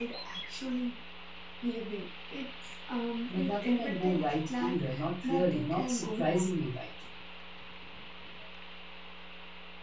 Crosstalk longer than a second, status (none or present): present